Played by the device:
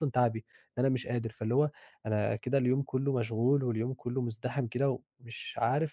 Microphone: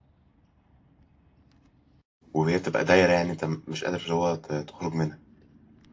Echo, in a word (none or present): none